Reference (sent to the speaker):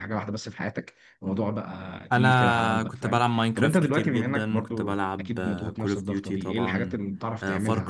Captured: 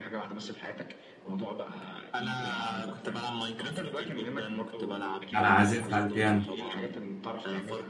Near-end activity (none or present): present